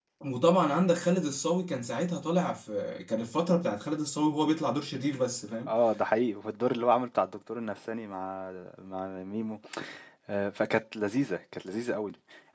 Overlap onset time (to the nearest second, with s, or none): none